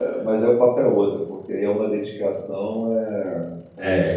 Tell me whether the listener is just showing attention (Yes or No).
No